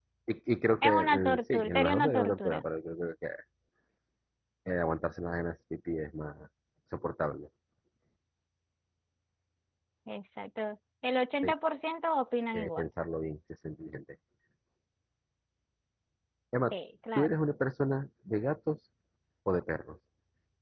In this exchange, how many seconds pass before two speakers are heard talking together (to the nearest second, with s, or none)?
1 s